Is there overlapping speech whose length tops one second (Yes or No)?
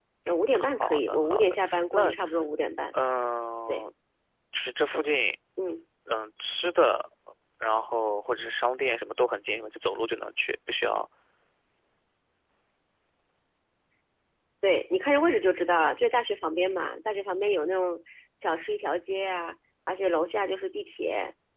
Yes